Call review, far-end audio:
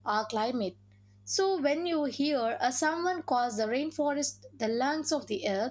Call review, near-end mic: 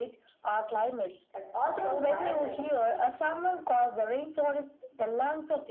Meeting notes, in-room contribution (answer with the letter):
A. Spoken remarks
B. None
A